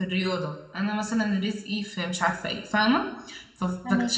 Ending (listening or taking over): listening